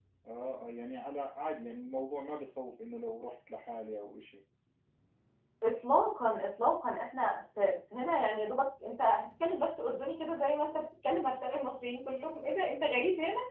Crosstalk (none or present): none